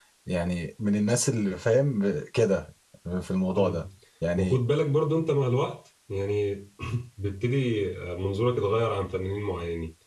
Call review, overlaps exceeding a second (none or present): none